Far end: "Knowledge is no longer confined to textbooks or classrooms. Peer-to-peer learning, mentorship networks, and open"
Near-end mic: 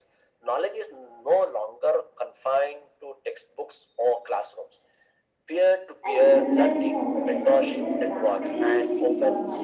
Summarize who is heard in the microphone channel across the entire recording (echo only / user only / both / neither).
both